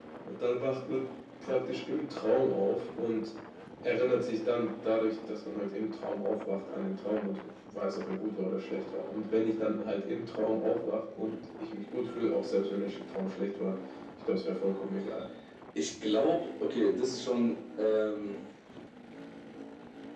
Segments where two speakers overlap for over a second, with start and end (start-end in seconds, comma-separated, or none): none